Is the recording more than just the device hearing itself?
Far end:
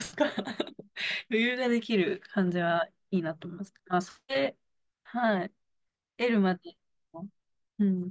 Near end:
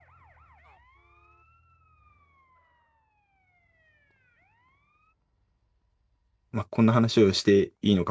Yes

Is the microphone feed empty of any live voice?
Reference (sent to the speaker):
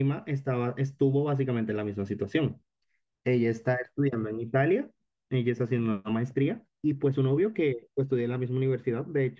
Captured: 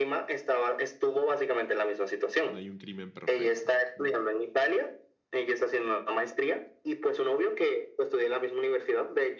No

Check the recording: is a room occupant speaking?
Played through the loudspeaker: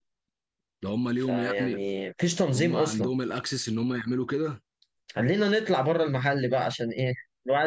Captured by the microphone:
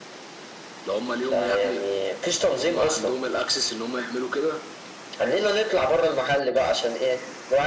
No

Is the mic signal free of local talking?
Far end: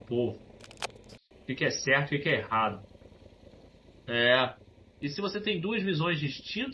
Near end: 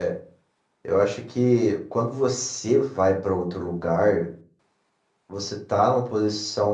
No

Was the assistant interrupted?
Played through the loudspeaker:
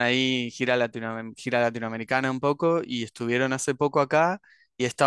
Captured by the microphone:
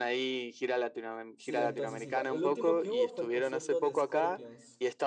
Yes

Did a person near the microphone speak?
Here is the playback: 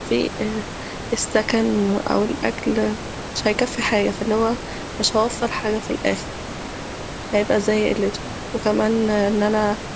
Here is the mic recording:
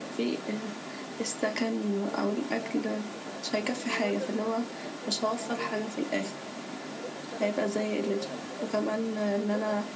Yes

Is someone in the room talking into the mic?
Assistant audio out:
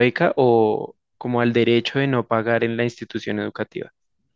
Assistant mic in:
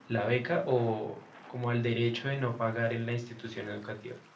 No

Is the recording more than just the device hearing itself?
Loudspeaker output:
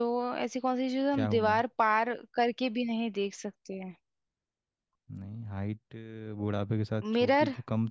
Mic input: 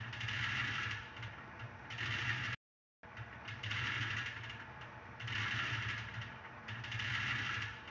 No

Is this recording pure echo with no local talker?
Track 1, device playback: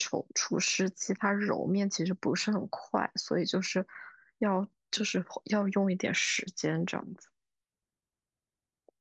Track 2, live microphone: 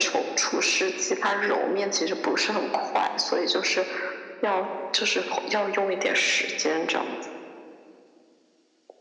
Yes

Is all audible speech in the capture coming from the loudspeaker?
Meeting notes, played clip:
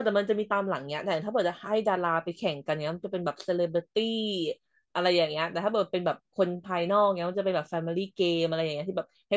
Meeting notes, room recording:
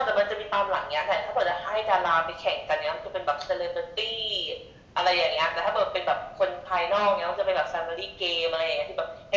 Yes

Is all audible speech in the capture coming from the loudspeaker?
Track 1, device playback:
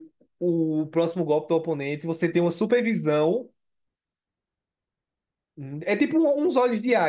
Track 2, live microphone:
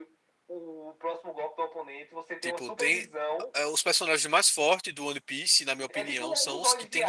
No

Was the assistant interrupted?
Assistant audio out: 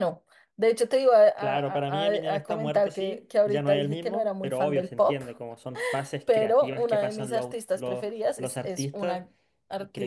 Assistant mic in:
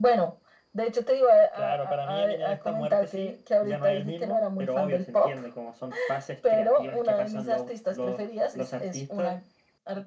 No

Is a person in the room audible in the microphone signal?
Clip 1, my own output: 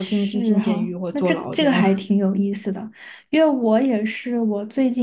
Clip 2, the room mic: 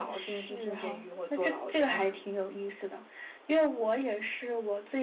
No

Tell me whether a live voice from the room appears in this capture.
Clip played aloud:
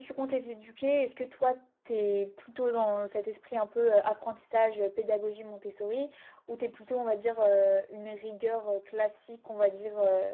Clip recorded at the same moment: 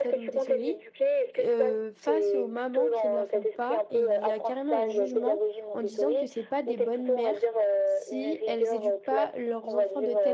Yes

